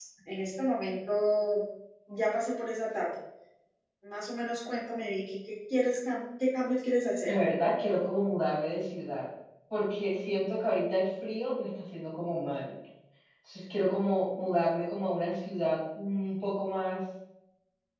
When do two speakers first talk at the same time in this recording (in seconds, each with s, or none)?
none